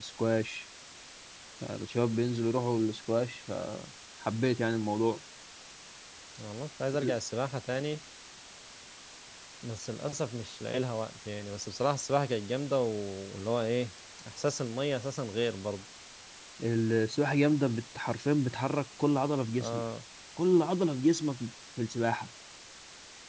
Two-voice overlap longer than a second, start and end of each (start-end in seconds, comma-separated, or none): none